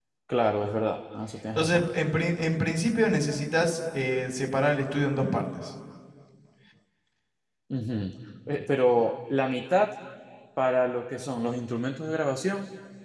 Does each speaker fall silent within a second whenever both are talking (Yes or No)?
Yes